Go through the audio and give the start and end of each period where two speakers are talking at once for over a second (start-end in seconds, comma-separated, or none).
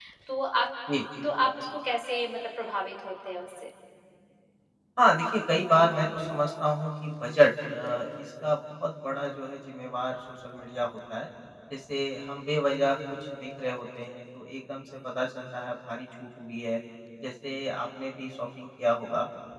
none